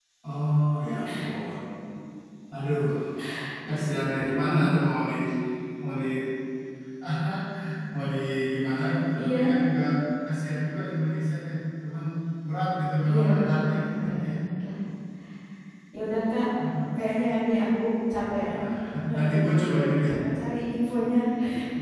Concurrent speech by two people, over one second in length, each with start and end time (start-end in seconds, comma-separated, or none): 13.1-14.3